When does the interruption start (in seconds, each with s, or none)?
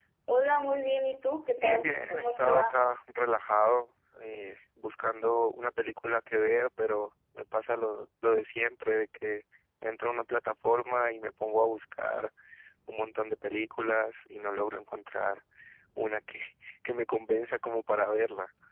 1.6 s